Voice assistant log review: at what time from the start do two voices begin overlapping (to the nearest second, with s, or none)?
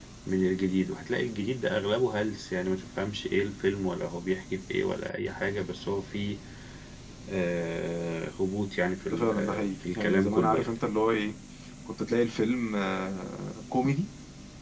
9 s